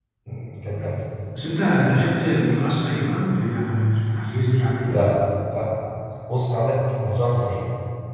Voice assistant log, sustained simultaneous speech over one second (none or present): none